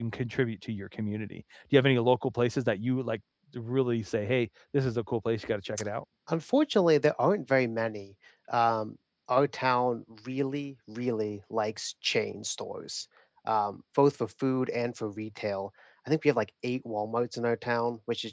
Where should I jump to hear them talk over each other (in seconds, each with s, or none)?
none